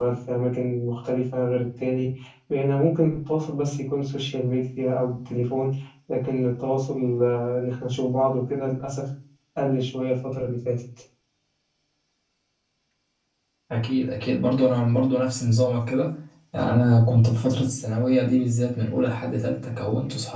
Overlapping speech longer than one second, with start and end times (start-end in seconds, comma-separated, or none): none